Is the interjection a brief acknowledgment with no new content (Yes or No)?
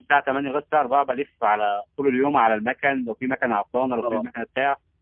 Yes